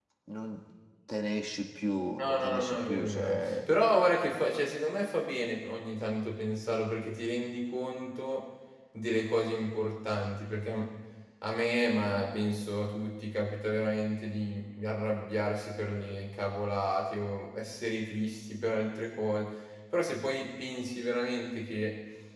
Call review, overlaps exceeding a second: present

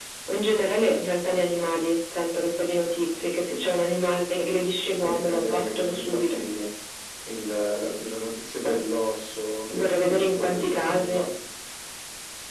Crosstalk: present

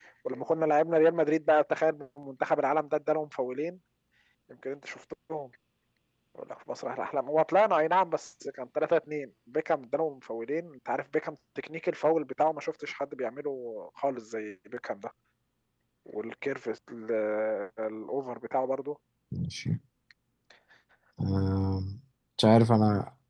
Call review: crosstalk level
none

